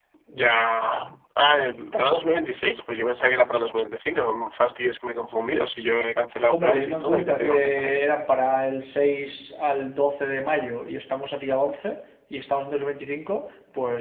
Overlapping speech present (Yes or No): Yes